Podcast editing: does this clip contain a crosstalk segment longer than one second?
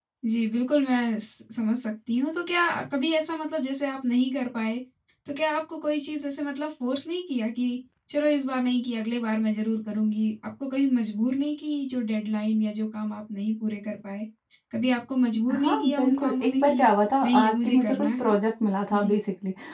Yes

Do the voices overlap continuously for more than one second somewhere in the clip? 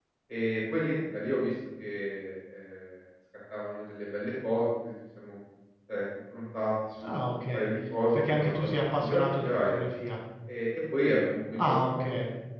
Yes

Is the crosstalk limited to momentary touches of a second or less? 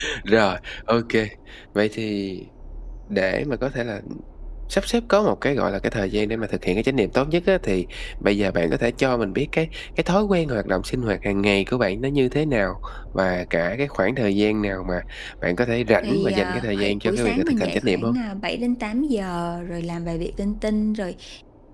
No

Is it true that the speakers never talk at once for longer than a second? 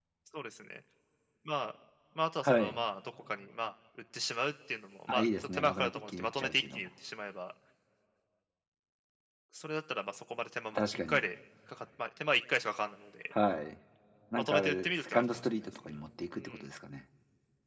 No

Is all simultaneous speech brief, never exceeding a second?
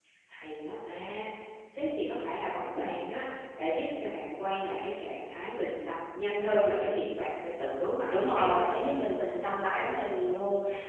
Yes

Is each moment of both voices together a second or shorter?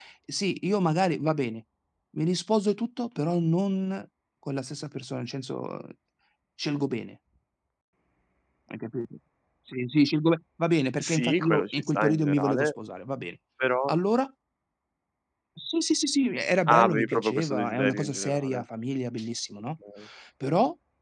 No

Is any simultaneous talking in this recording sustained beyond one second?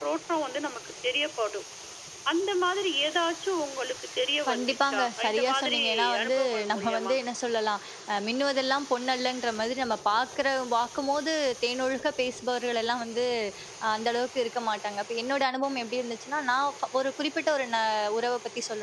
Yes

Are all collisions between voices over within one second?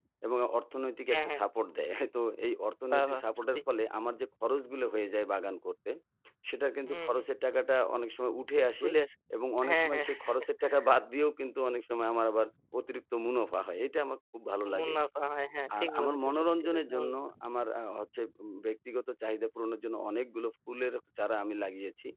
No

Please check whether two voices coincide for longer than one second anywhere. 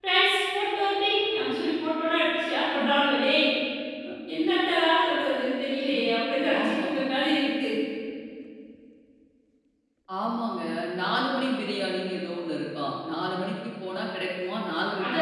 No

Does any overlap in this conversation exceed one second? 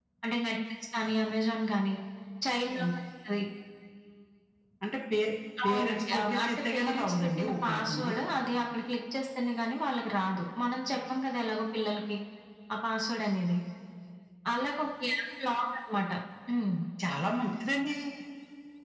Yes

